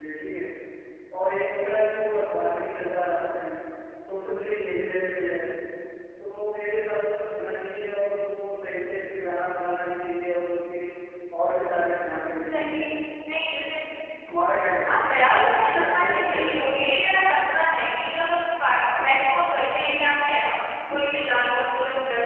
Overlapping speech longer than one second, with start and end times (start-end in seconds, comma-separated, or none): 14.8-16.7